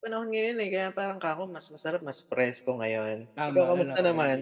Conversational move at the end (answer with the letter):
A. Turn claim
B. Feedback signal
A